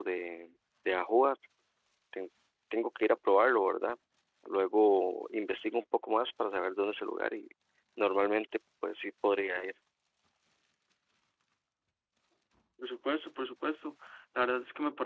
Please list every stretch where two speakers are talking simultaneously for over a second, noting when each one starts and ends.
none

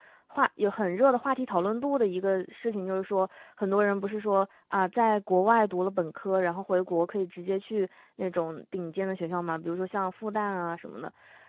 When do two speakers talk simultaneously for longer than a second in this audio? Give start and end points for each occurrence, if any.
none

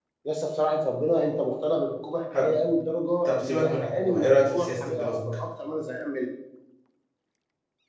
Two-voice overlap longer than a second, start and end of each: 3.2-5.1

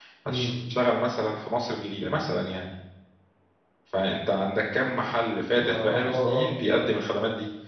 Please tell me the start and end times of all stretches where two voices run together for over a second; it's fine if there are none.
5.5-6.8

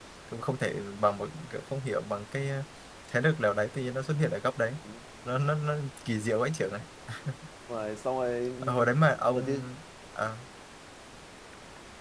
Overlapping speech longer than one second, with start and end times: none

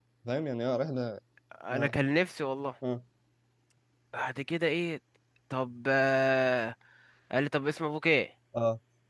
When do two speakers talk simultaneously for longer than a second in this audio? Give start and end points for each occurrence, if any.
none

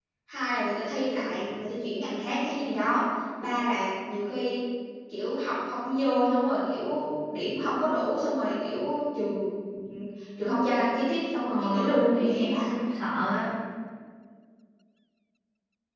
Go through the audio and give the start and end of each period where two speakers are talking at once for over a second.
11.5-12.8

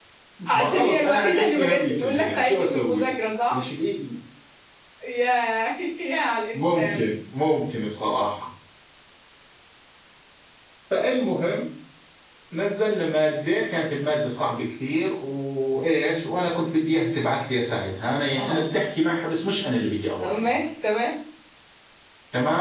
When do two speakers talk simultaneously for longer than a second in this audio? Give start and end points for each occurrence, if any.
0.5-3.1

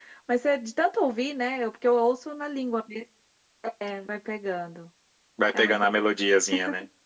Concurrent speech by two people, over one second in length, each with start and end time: none

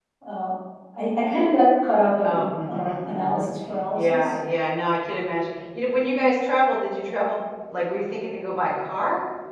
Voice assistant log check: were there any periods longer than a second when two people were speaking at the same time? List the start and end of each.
2.2-3.5

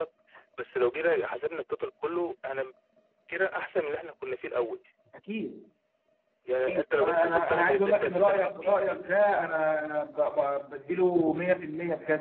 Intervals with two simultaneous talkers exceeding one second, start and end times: 6.6-8.7

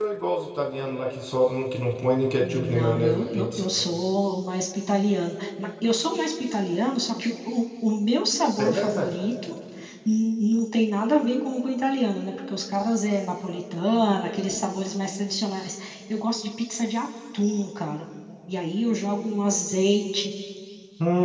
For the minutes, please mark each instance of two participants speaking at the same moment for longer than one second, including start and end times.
2.4-3.6

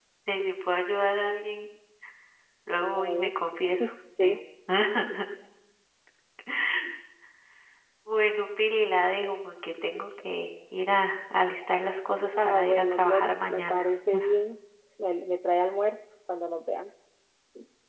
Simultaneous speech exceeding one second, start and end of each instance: 12.4-13.9

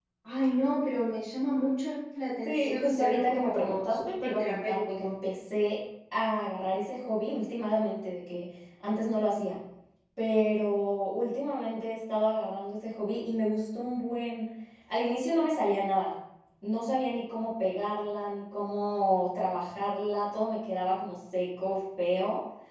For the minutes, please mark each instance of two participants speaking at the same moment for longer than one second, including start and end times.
2.5-5.1

